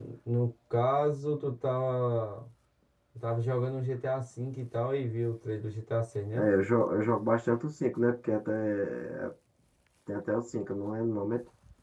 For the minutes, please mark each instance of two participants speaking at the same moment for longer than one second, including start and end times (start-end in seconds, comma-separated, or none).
none